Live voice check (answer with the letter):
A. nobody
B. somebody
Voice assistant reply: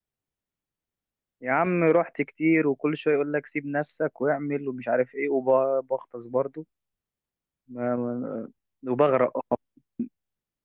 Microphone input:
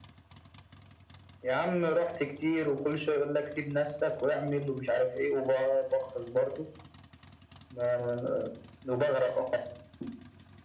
A